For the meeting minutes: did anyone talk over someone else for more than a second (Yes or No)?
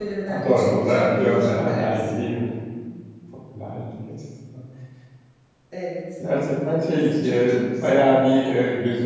Yes